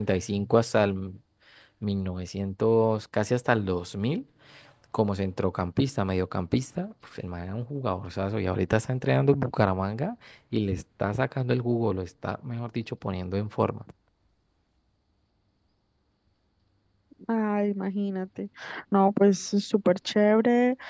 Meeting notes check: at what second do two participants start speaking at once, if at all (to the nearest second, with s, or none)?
none